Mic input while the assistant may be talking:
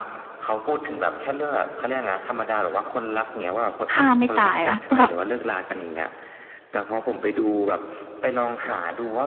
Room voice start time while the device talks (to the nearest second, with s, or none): 4 s